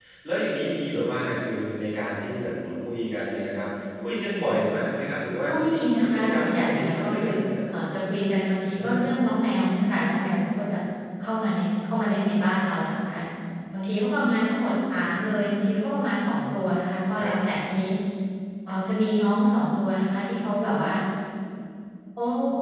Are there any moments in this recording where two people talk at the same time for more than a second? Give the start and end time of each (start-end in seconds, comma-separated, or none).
5.5-7.3